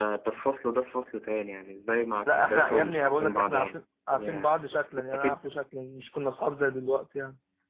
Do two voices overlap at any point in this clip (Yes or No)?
Yes